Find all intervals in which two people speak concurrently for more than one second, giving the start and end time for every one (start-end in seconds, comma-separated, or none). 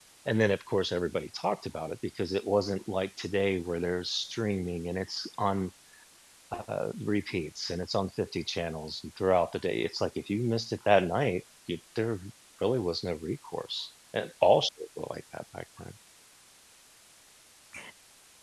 none